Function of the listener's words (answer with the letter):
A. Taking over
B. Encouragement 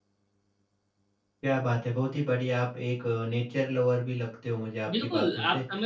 A